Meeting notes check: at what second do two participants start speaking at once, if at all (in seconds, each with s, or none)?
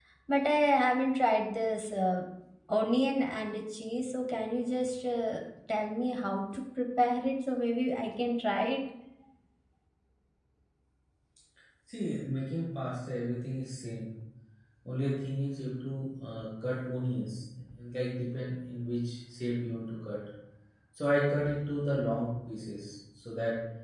none